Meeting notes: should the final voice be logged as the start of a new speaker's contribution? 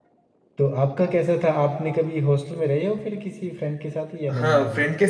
Yes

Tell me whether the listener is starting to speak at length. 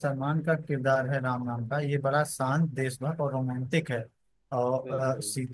No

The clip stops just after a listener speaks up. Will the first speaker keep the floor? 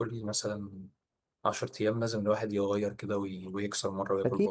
No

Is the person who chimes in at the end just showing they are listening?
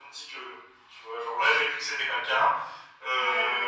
No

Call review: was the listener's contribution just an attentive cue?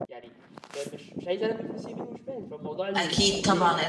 No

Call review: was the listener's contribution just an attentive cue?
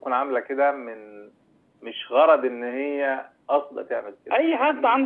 No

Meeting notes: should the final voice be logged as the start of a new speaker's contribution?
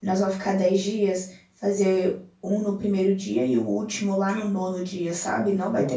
Yes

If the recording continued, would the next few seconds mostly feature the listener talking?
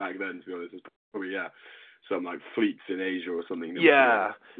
Yes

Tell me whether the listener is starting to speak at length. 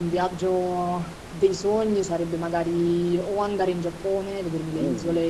No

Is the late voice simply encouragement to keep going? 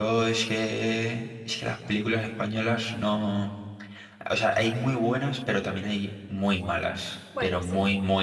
Yes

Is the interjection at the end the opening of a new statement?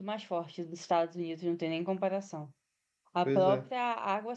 No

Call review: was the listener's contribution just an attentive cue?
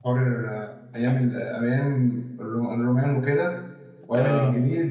Yes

